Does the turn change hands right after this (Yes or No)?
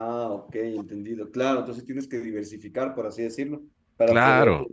No